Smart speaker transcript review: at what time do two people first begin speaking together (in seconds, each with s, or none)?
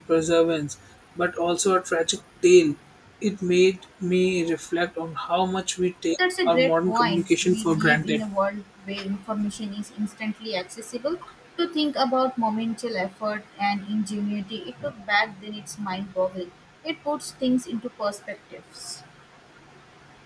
6.5 s